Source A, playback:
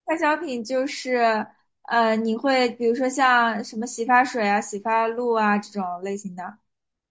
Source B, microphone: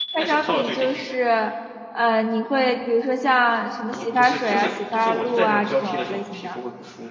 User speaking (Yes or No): Yes